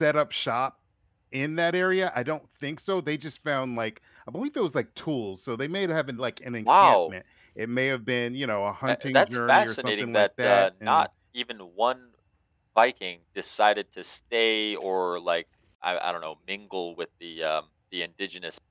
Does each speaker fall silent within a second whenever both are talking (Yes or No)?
No